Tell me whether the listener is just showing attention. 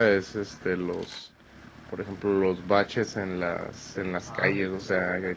Yes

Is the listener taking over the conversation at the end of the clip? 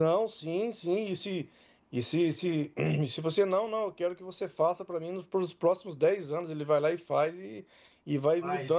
No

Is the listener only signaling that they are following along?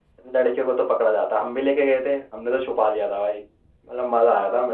Yes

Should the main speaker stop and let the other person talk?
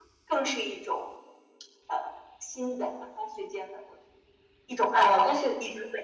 Yes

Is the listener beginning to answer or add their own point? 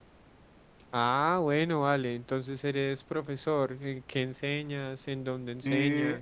Yes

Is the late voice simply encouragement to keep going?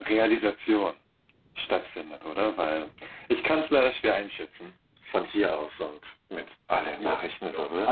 No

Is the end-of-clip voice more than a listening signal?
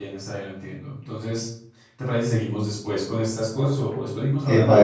Yes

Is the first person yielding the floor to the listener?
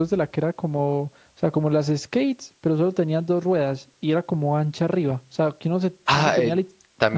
Yes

